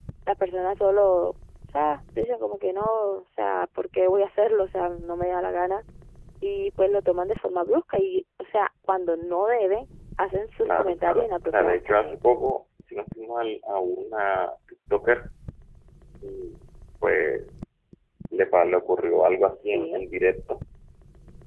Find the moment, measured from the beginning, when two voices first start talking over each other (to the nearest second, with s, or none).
11 s